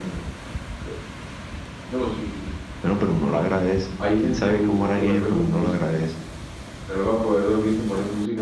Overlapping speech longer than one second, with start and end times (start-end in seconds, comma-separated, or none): 4.2-5.7